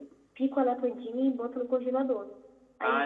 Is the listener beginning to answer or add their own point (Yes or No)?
No